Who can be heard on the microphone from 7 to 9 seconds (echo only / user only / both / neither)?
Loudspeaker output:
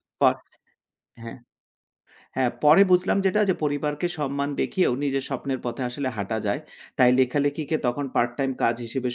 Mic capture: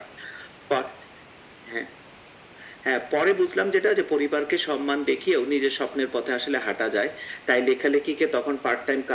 echo only